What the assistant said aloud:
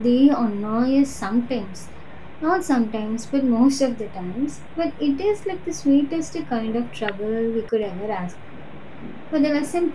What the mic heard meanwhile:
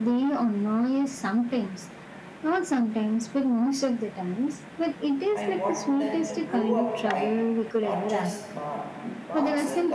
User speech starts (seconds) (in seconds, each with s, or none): 5.3 s